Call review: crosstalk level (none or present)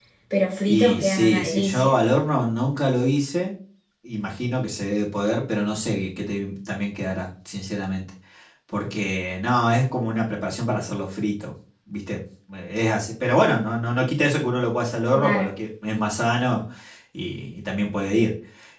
present